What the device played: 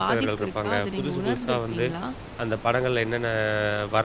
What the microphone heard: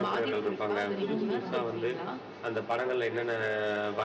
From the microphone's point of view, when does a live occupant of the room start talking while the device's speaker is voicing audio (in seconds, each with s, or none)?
1.0 s